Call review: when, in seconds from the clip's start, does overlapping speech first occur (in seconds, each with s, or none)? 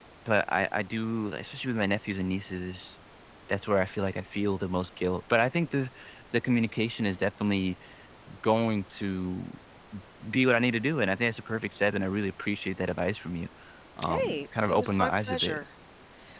14.0 s